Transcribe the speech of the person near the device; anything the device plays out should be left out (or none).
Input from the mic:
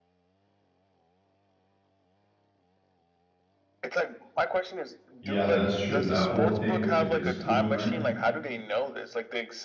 Yeah, that's true. That whole thing with the Discord, right?